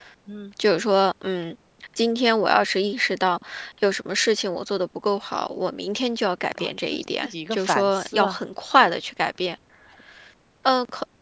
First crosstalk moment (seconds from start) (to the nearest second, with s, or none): 7 s